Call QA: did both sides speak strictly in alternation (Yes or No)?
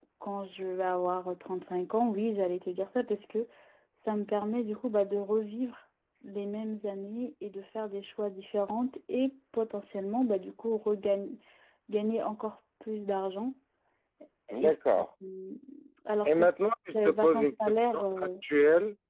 No